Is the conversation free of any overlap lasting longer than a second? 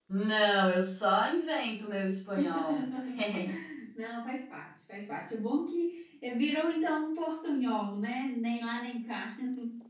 Yes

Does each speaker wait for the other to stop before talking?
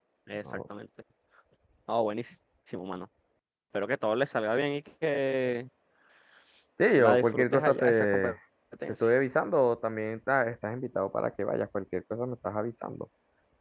No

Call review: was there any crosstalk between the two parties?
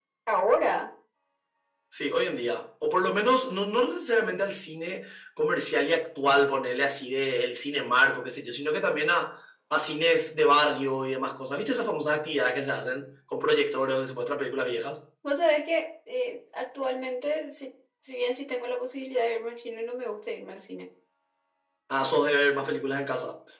No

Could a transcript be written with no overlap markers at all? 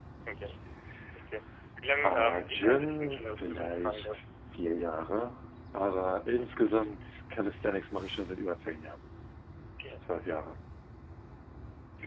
No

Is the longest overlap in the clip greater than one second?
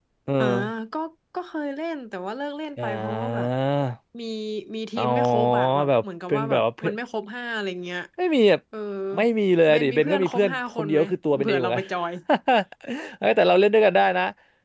Yes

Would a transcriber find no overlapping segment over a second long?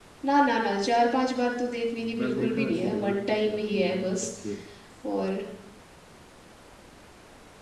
No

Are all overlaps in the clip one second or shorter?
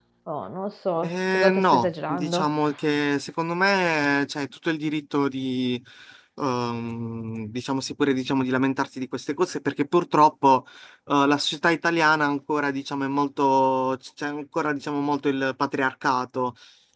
No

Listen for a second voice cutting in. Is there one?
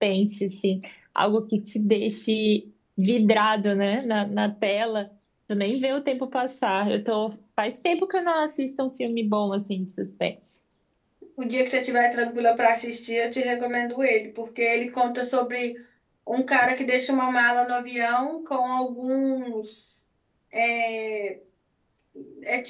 No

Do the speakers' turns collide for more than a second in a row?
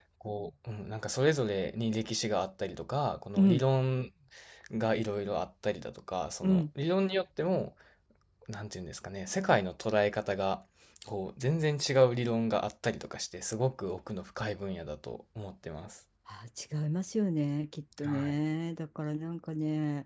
No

